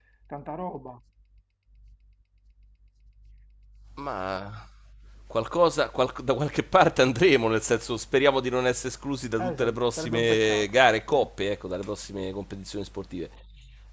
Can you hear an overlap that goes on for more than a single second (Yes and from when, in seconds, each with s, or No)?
Yes, from 9.4 s